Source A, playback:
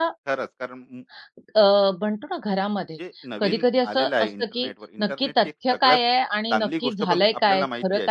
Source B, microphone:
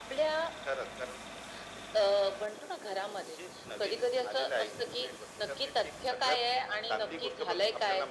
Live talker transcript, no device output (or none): none